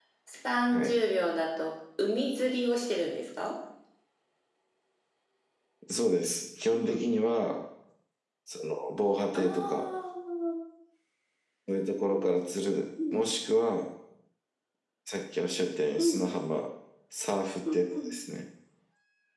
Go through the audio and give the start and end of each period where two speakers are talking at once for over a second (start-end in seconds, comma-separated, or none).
none